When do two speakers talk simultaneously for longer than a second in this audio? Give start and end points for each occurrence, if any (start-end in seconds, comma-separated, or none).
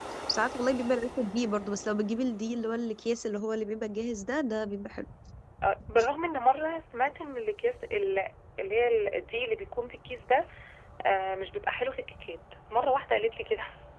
none